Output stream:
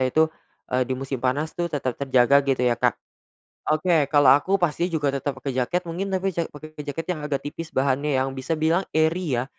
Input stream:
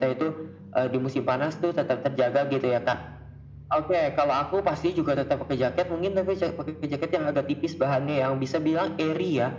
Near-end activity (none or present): none